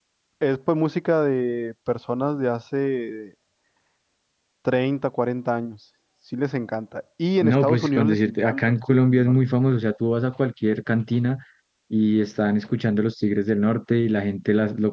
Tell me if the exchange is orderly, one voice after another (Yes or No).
No